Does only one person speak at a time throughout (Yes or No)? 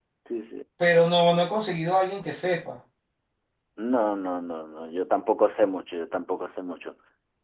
Yes